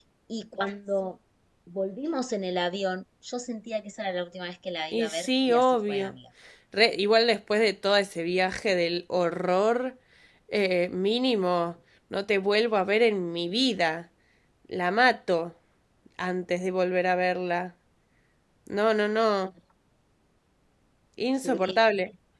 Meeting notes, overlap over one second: present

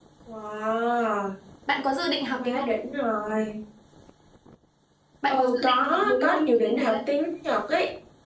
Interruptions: present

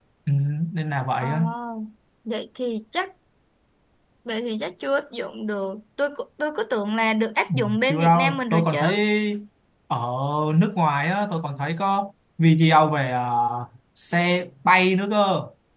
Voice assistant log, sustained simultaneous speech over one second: present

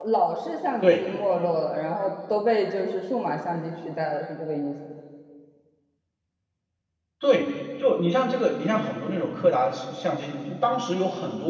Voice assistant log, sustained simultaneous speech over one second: none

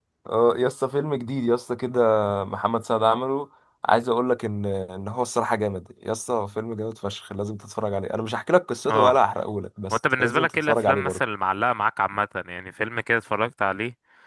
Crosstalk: present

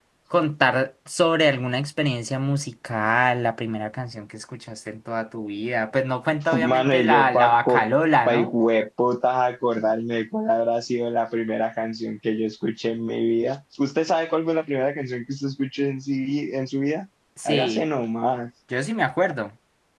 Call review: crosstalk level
present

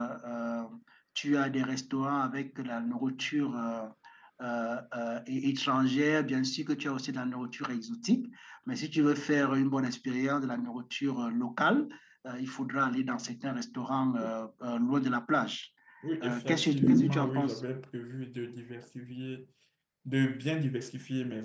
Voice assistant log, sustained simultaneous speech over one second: present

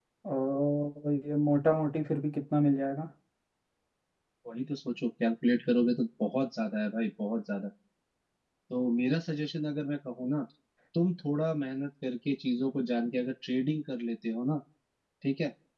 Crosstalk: none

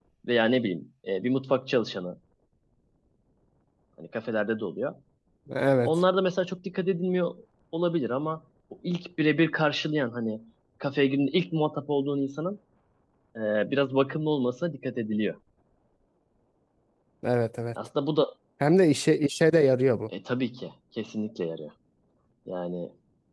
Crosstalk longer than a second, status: none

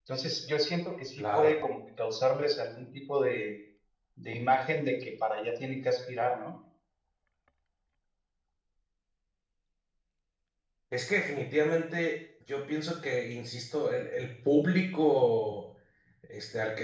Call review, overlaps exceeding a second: none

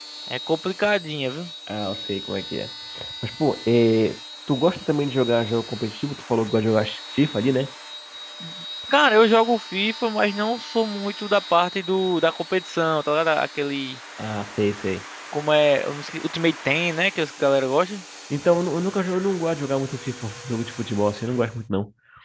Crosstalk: none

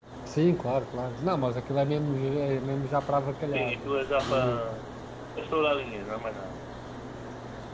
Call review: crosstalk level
present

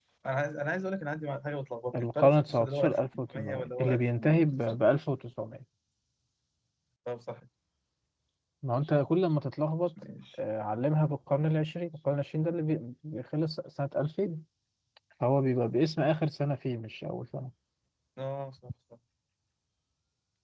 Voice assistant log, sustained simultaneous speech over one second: present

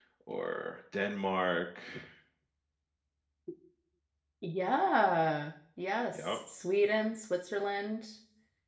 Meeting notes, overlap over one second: none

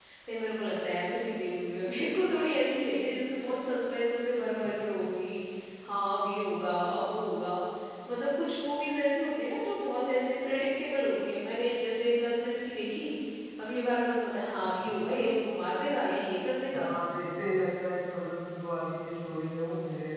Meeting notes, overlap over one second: none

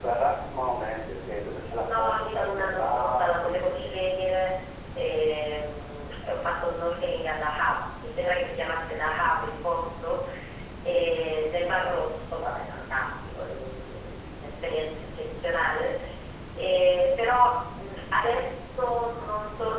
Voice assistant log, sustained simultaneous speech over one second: present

